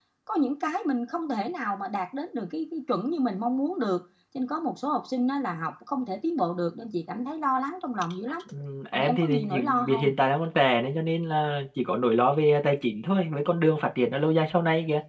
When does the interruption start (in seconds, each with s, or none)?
8.9 s